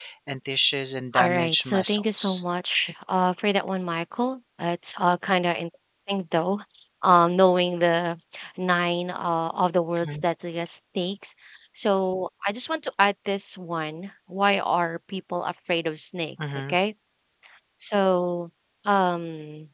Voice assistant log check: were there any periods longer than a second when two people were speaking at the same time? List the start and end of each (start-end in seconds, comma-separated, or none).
1.1-2.4